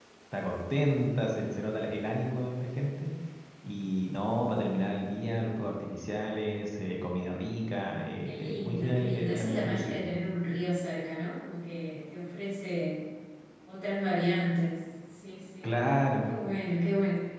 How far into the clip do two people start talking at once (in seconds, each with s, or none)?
8.2 s